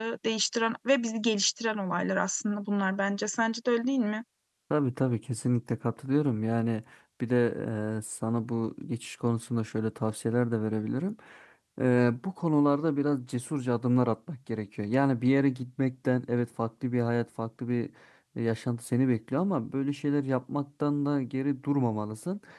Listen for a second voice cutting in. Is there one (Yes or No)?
No